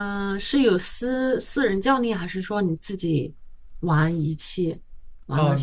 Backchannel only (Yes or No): No